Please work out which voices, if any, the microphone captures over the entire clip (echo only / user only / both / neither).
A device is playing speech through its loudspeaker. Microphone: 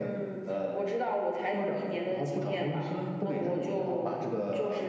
echo only